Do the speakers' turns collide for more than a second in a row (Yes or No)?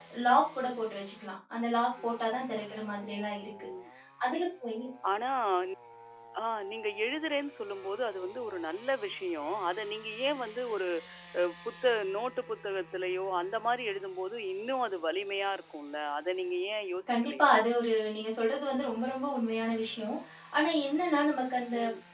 No